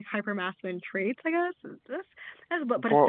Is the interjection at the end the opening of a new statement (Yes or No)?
No